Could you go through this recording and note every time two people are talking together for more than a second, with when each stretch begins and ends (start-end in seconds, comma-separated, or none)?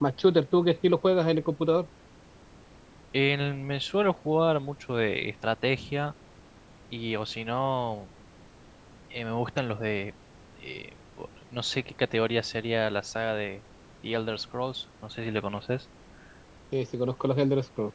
none